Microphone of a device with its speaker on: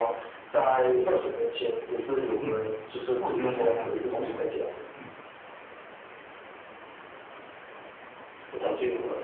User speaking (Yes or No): Yes